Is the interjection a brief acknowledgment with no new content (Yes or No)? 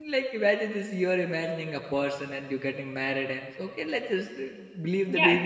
No